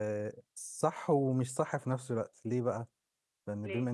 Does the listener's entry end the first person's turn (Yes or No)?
No